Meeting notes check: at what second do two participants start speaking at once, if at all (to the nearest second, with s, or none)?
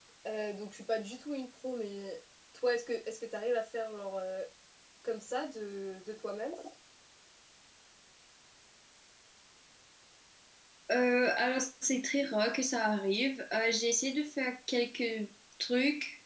none